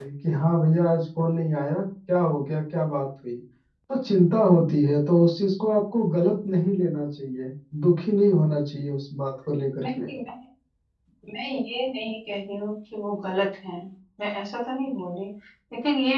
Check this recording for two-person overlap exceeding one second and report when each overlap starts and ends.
none

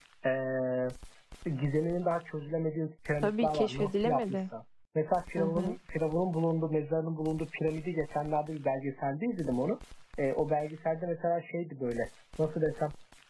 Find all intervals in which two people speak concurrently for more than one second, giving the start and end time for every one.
3.2-4.5

